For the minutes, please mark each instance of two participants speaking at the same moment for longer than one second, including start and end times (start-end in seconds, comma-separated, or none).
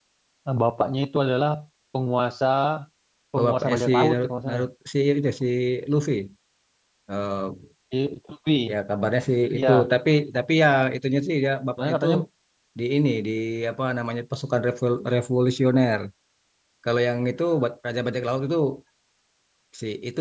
3.4-4.7